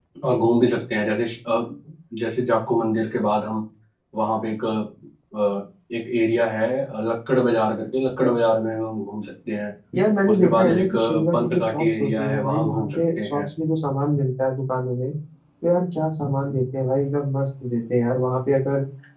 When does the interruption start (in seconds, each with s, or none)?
10.3 s